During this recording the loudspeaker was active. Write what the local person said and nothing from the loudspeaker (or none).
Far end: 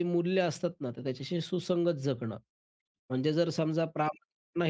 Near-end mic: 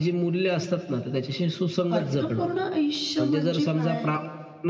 अर्थपूर्ण आयुष्य म्हणजे काय?